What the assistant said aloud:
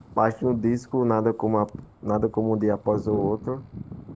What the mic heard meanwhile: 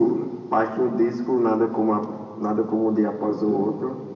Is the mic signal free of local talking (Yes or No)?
Yes